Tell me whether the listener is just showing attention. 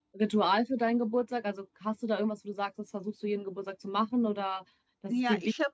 No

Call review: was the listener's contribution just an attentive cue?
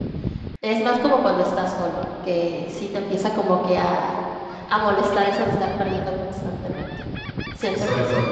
Yes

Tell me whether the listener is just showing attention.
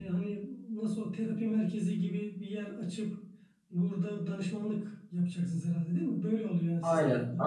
No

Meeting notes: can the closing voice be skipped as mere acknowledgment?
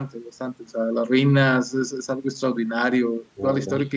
Yes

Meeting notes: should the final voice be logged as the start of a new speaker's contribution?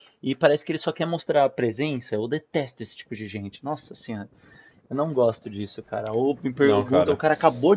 No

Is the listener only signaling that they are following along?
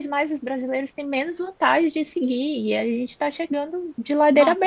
No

